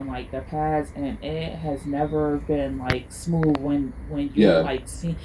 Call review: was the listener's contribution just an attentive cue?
Yes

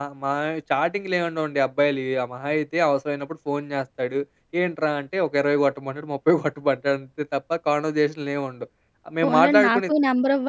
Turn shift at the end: Yes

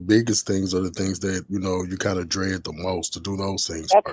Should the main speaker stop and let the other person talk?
Yes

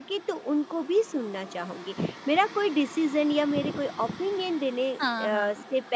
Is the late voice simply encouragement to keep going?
Yes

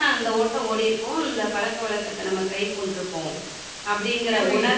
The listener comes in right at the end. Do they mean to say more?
Yes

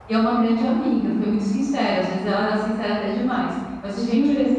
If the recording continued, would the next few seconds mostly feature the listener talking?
No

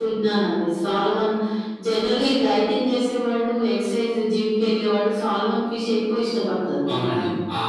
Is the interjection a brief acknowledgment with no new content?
No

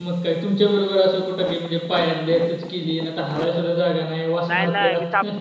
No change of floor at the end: No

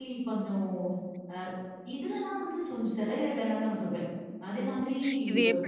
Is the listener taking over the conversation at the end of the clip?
Yes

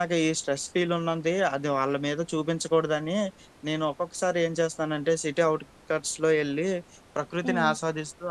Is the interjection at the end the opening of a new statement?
No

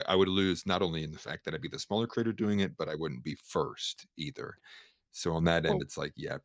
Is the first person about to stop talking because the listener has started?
No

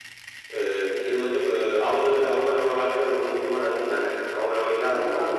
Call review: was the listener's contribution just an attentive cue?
No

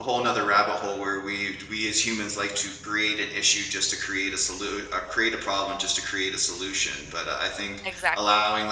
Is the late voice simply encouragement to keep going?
Yes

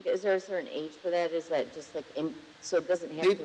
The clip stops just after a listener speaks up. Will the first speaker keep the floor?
No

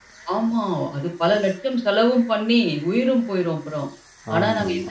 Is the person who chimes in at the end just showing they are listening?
Yes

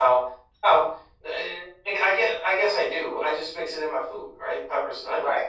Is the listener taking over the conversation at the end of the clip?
Yes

